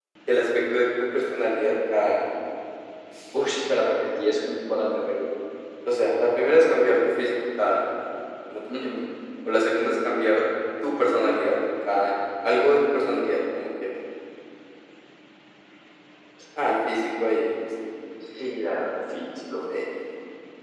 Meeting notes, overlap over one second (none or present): none